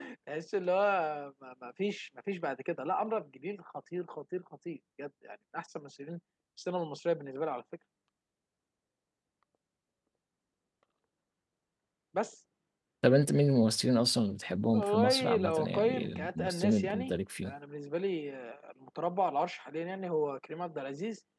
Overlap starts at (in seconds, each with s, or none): 14.7 s